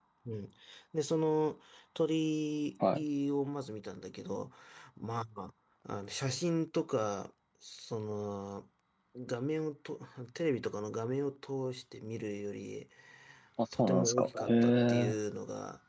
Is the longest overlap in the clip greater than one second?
Yes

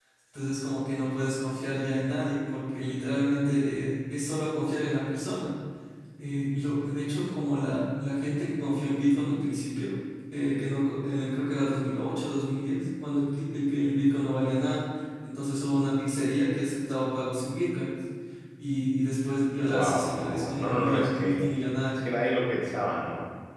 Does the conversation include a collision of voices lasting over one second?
Yes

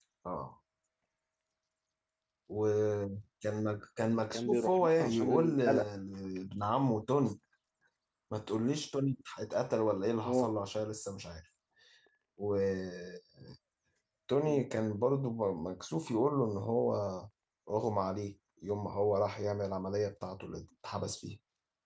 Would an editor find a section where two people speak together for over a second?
Yes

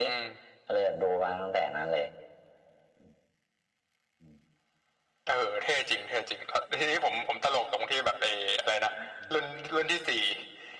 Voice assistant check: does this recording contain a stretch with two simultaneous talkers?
No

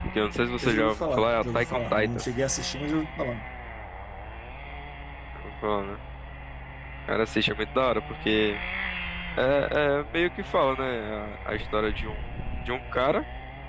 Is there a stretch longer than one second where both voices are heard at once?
Yes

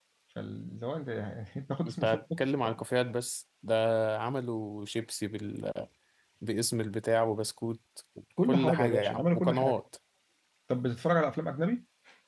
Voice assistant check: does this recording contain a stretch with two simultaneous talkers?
Yes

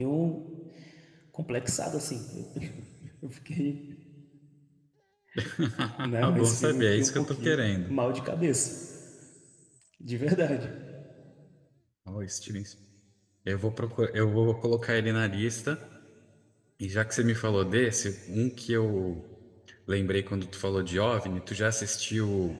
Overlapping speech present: Yes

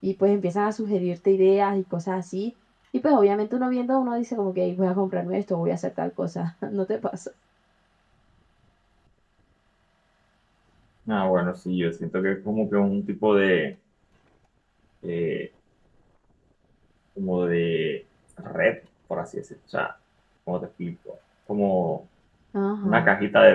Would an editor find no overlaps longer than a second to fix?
Yes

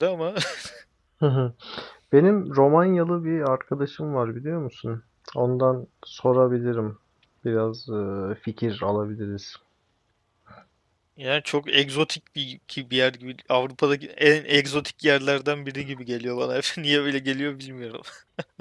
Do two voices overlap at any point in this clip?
No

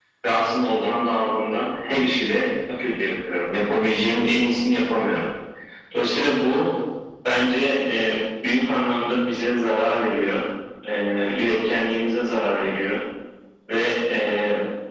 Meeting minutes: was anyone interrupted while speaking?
No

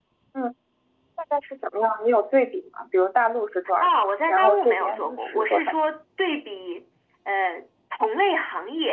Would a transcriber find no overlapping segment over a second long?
No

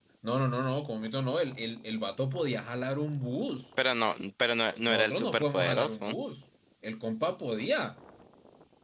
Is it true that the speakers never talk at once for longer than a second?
No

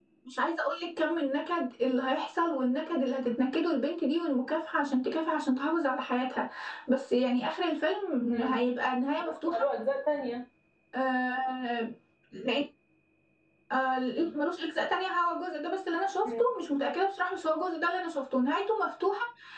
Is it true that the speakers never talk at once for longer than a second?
Yes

